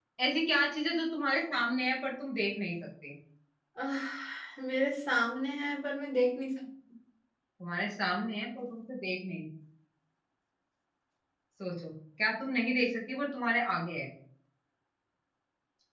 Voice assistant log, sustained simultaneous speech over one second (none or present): none